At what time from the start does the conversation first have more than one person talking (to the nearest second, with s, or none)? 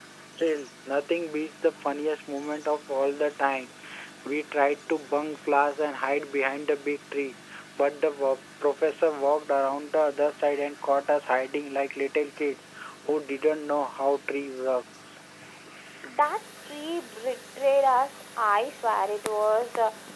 none